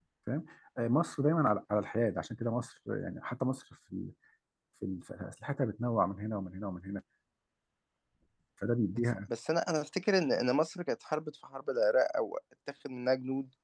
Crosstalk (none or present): none